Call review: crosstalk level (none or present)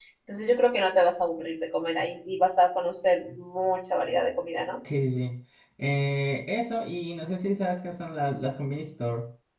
none